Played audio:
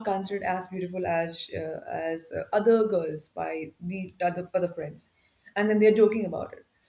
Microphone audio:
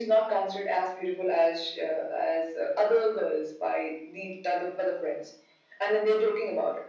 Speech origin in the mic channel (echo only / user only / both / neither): echo only